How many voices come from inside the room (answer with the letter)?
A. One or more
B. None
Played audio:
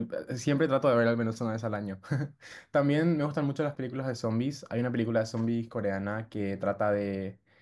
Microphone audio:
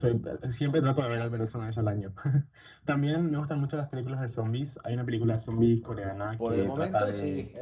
A